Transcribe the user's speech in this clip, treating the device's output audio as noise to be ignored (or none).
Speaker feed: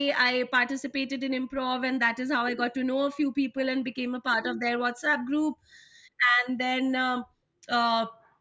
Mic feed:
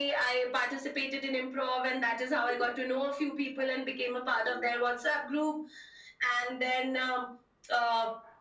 none